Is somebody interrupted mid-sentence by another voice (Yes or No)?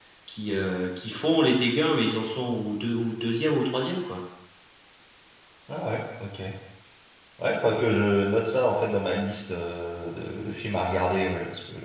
No